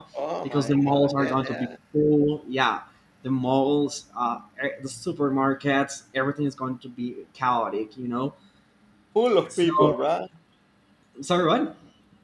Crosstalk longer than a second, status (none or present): present